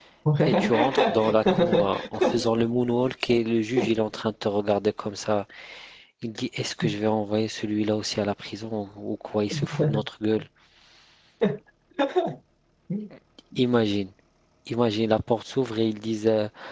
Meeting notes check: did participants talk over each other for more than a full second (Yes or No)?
Yes